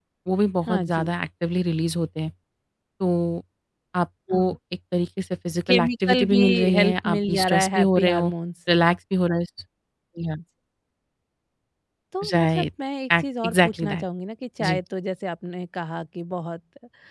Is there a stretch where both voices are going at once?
Yes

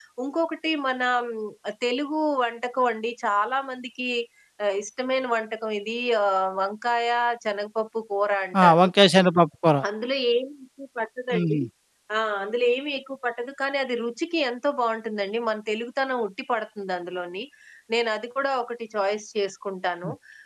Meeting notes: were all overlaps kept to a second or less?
Yes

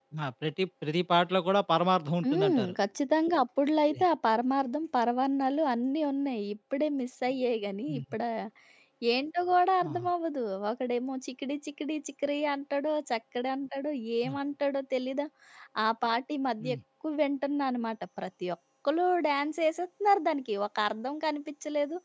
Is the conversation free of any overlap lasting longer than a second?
Yes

